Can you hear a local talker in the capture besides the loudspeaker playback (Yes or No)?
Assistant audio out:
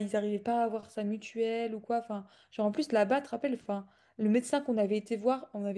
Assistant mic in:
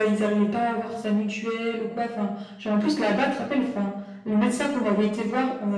No